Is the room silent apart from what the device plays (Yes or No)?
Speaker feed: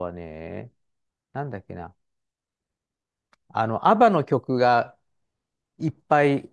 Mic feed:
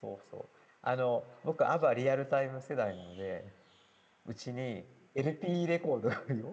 No